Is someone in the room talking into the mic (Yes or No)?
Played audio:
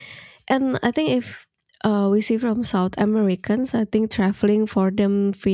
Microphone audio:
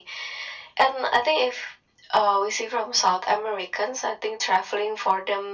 No